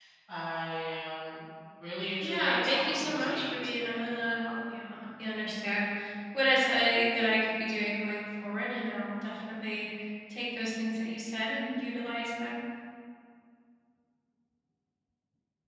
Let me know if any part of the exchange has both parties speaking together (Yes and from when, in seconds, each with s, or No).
Yes, from 2.2 s